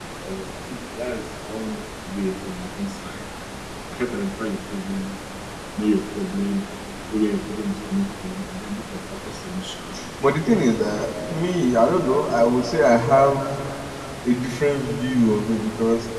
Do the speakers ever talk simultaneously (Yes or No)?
No